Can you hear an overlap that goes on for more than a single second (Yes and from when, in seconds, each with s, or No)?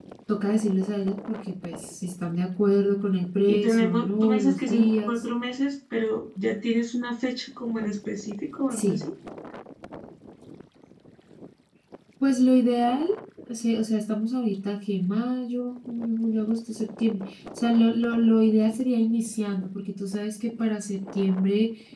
Yes, from 3.5 s